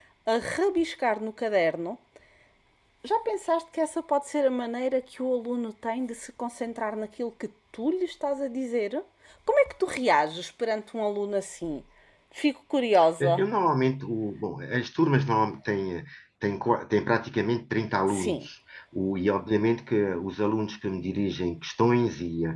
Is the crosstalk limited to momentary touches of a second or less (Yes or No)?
Yes